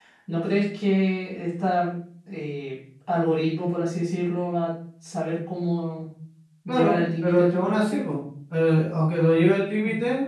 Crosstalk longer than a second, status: present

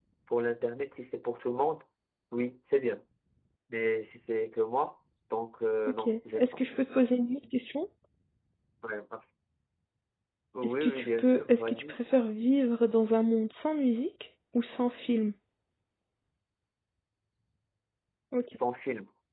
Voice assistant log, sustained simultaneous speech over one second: present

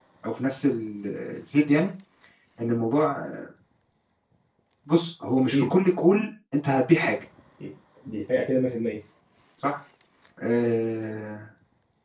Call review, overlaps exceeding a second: none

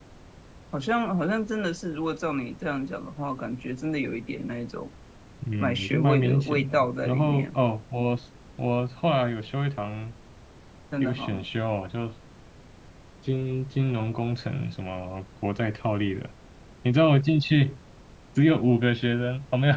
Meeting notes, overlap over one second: present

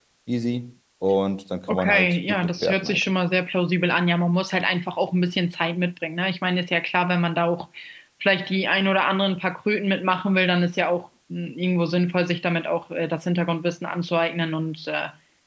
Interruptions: present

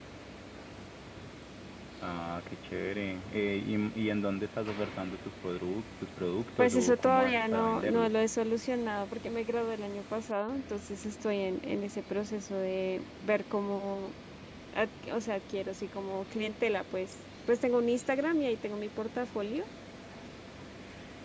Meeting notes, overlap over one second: present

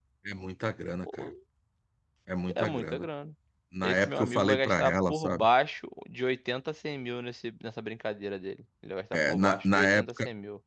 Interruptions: present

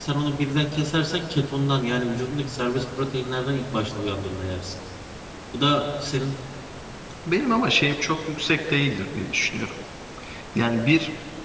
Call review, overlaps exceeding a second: none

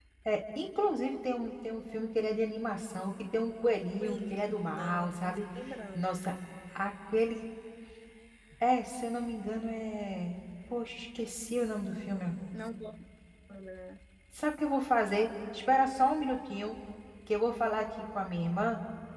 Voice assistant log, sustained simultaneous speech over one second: present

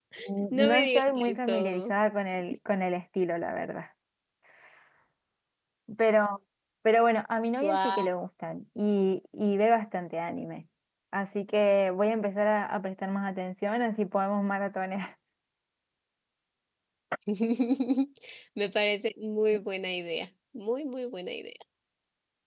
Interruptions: present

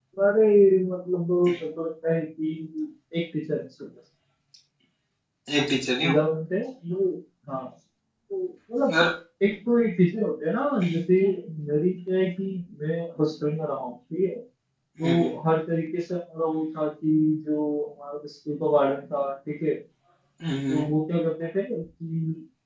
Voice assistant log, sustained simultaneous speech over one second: none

